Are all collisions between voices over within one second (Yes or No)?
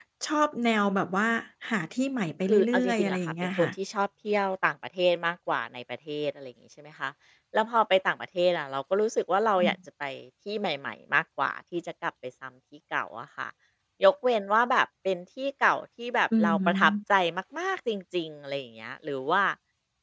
No